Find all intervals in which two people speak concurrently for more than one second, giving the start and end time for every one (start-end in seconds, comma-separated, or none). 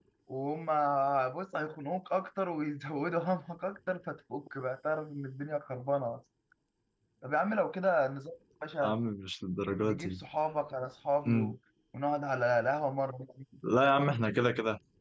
none